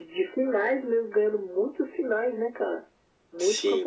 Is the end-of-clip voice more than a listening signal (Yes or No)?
Yes